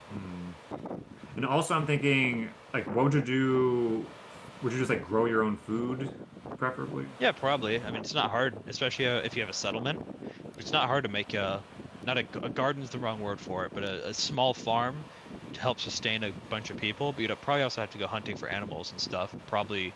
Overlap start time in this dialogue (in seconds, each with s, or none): none